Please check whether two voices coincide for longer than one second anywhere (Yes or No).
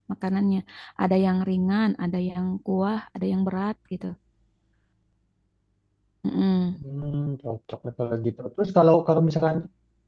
No